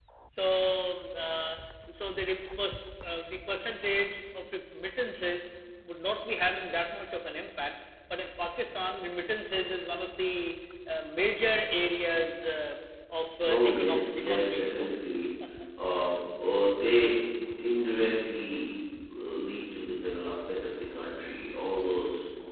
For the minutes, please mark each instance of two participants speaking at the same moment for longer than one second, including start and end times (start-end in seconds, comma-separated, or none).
13.5-14.9